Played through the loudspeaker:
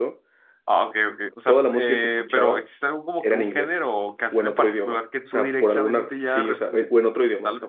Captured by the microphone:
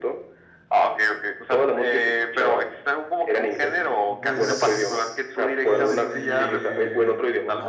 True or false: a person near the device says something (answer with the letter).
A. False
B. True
B